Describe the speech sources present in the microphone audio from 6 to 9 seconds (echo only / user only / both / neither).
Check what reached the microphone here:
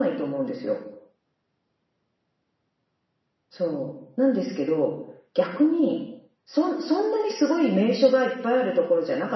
echo only